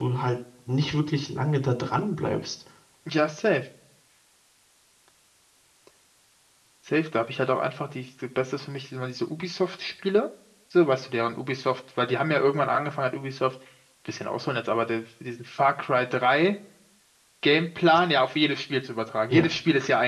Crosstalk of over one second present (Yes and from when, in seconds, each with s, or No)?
No